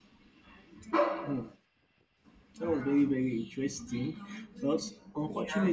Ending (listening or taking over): listening